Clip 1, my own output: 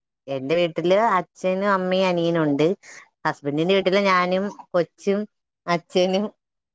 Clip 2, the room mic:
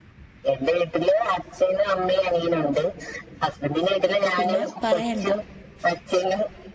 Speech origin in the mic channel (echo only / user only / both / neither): both